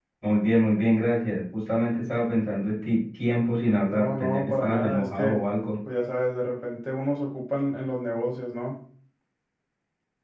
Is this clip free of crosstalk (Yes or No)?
No